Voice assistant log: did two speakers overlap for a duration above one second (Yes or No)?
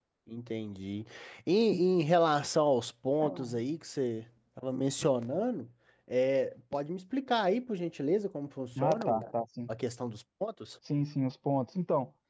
No